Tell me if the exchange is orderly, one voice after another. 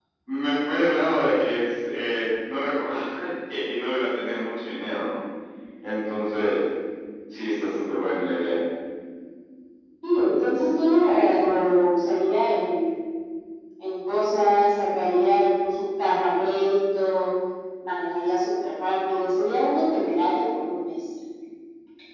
Yes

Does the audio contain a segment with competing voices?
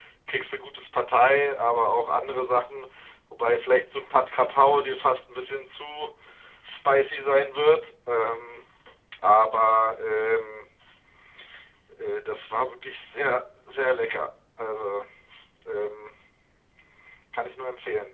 No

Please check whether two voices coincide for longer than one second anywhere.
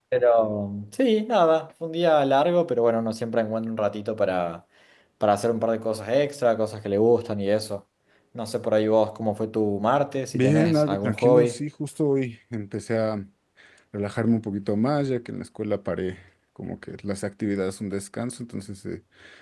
Yes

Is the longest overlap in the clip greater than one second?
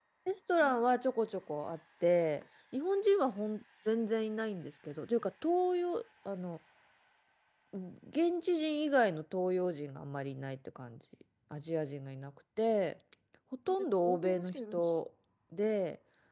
Yes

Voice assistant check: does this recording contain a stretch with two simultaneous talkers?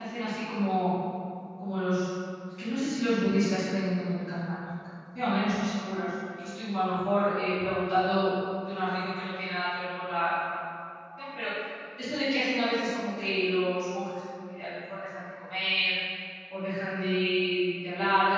No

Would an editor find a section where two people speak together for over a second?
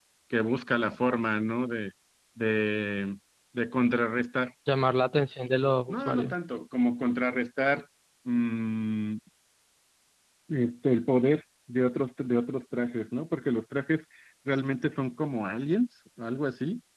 No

